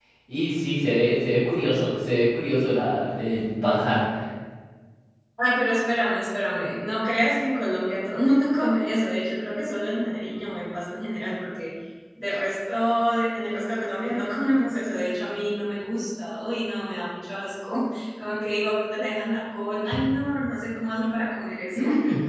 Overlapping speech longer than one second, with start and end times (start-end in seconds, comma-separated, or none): none